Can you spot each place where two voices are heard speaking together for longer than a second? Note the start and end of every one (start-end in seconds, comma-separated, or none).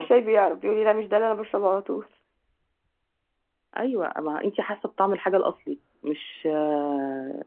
none